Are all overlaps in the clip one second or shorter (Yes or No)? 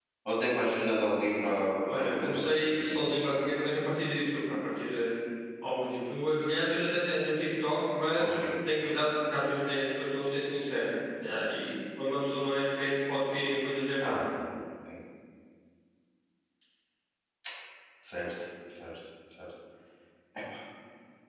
No